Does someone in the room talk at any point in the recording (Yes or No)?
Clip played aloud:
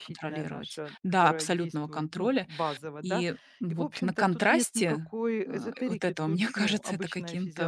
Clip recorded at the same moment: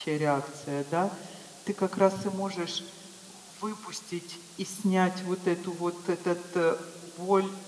Yes